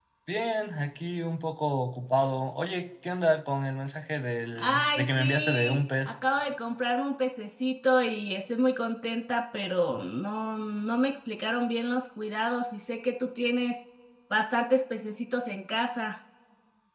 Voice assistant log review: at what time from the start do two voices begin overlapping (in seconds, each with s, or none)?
4.5 s